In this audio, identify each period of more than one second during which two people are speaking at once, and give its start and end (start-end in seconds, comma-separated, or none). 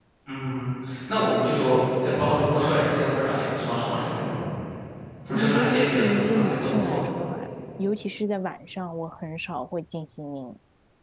5.3-7.0